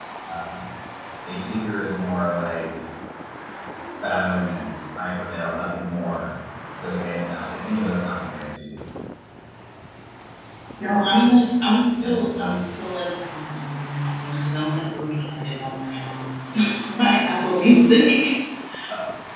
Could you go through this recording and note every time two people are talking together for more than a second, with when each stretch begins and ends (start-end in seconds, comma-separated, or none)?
none